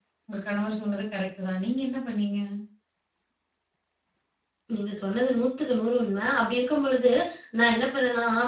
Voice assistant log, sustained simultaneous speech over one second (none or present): none